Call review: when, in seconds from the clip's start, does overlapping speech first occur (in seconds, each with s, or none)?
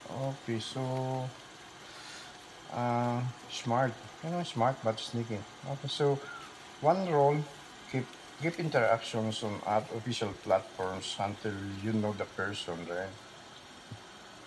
none